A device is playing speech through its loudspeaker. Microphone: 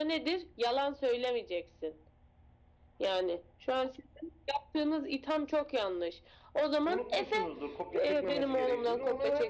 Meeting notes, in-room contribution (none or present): present